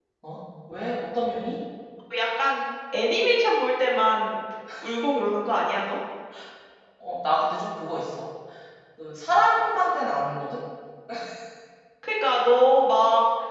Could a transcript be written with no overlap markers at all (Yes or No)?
Yes